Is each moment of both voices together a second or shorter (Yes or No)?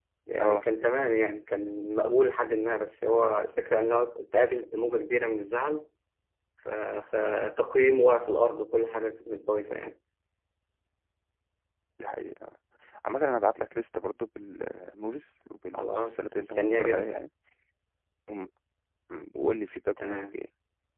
No